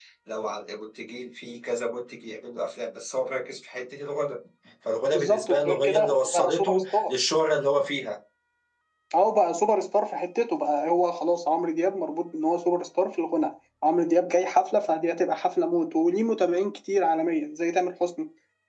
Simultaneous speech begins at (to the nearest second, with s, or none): 5 s